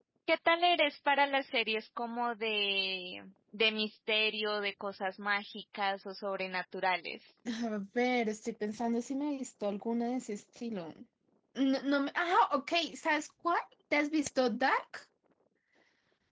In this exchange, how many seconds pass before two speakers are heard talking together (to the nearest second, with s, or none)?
none